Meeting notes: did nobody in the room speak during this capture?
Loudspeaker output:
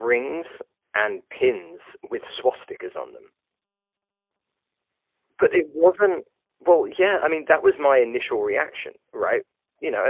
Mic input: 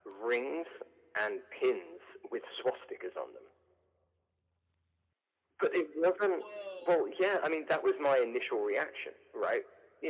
No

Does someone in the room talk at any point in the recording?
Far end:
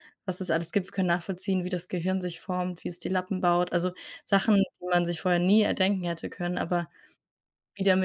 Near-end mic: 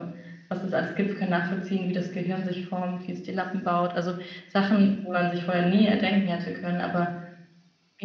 No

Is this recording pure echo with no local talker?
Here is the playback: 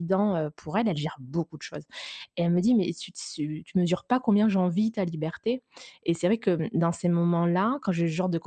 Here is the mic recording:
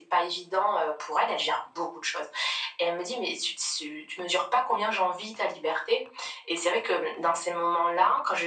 Yes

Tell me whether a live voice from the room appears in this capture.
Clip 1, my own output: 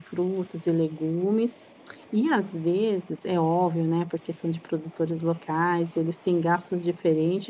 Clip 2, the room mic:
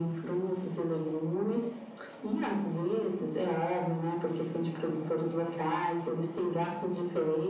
No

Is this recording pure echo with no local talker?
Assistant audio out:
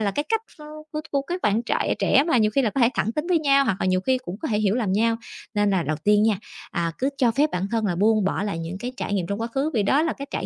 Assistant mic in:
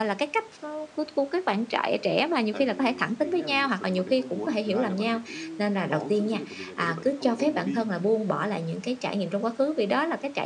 No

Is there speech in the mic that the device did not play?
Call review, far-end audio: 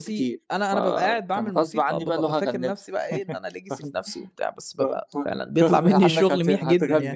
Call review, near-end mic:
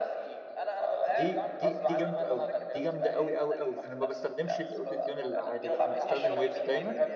Yes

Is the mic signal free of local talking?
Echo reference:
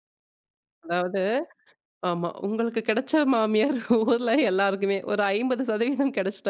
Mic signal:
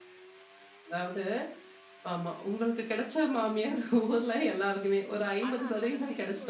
No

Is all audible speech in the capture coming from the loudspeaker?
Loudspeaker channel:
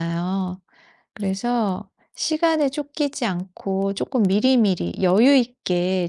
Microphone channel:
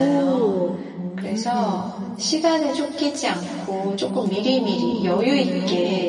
No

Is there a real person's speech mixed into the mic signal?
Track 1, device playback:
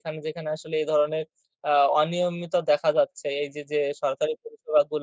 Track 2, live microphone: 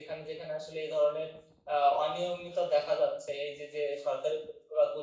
No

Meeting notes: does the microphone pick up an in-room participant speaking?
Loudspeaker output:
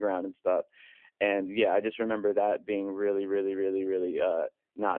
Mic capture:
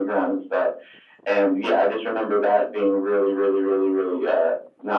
No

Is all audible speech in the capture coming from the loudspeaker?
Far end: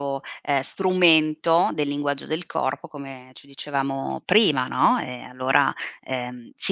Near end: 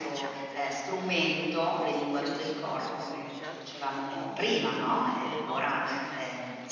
No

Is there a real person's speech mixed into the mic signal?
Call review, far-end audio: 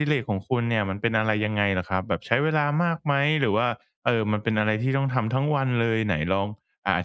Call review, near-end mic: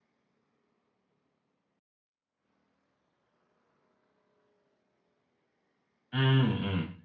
Yes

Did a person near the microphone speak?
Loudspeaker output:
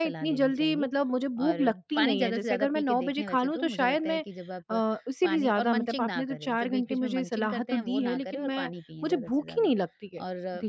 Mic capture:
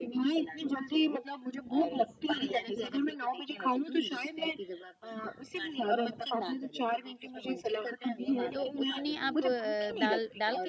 Yes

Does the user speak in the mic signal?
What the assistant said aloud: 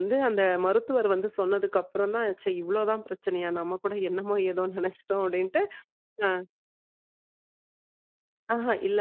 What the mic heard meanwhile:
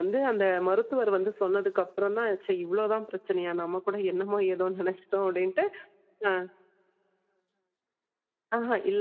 No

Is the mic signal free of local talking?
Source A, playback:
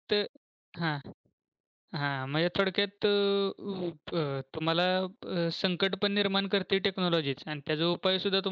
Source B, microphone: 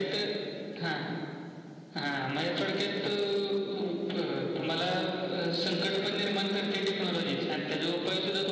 Yes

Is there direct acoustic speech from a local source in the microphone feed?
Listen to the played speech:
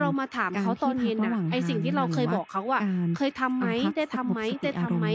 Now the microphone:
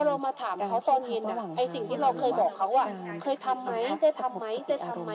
Yes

